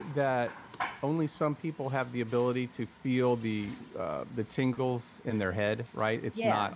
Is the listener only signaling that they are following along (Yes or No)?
Yes